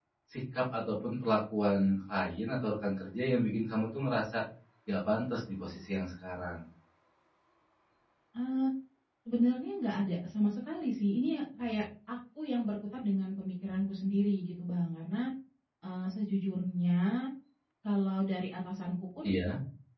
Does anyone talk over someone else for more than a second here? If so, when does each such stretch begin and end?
none

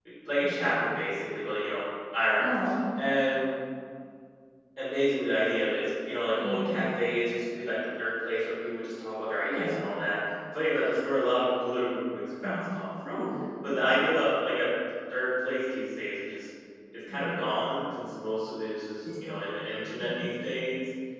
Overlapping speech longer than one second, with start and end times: none

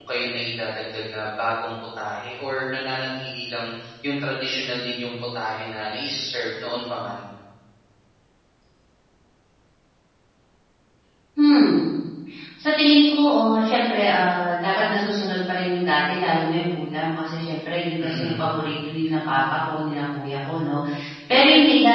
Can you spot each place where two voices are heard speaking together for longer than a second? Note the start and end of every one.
none

